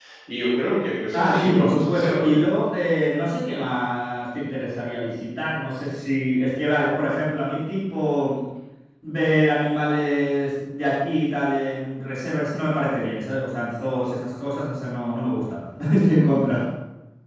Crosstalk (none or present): present